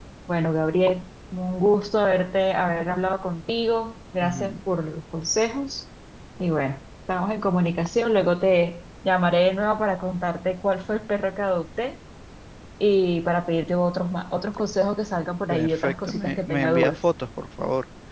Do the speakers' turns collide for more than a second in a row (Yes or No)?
Yes